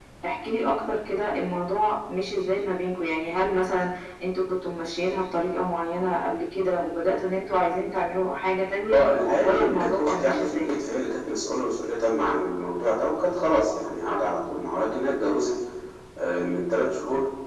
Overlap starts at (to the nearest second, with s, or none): 9 s